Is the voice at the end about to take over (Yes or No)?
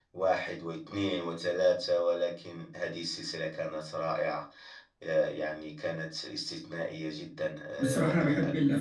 Yes